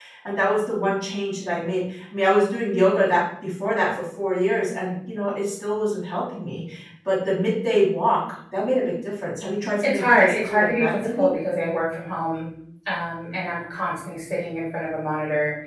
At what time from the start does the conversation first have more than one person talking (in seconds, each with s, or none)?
9.8 s